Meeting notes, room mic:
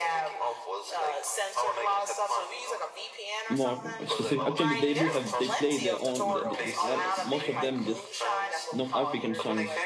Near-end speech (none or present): present